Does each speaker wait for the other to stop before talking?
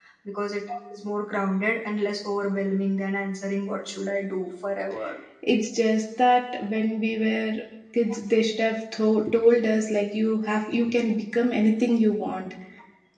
Yes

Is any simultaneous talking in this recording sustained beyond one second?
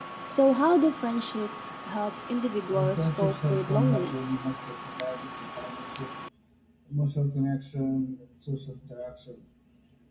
Yes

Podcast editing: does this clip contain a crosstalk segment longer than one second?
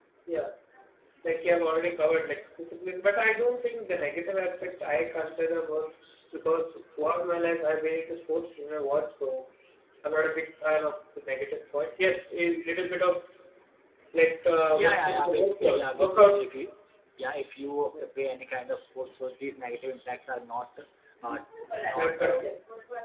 Yes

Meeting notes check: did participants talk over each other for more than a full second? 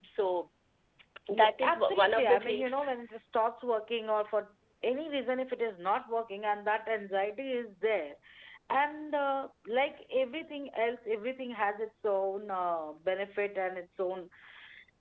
Yes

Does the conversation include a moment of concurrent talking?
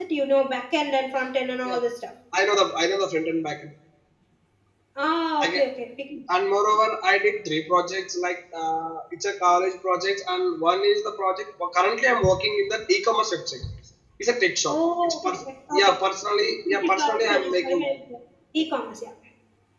Yes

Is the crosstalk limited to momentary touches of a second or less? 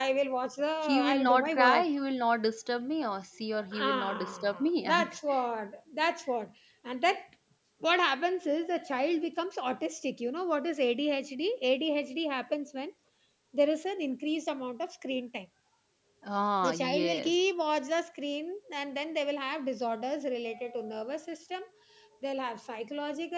No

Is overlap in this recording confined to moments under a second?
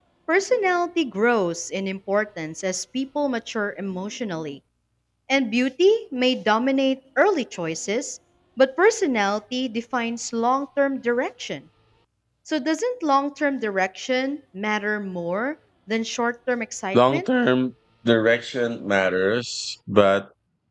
Yes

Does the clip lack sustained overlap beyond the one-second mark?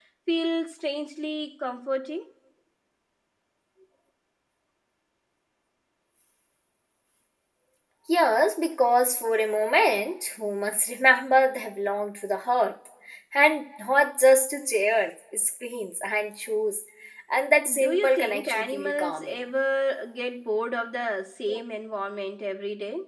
No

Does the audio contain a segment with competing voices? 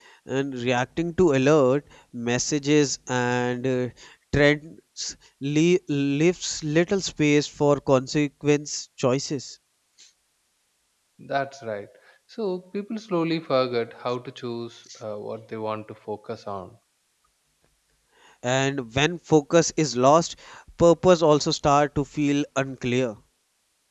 No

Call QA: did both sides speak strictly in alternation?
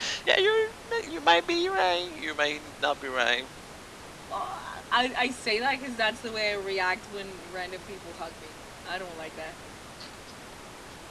Yes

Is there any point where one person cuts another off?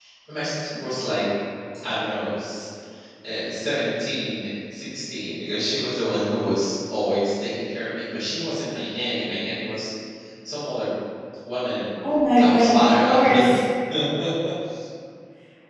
Yes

